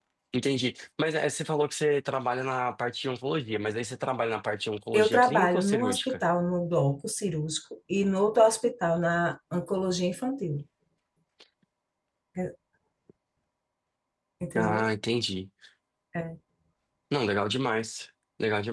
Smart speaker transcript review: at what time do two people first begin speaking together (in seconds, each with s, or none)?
4.9 s